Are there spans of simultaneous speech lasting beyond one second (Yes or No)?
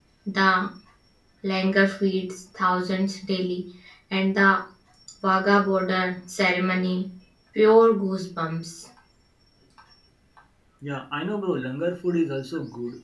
No